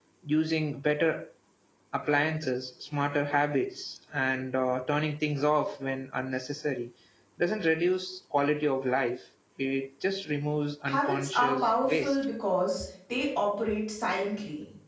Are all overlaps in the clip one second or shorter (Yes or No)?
No